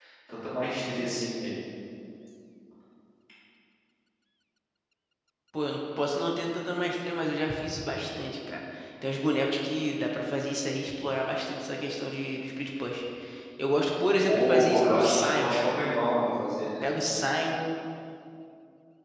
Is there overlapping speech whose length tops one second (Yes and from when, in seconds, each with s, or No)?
Yes, from 14.3 s